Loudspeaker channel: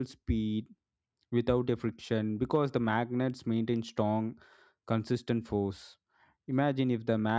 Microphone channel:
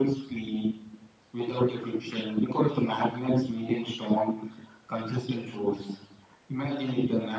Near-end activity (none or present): none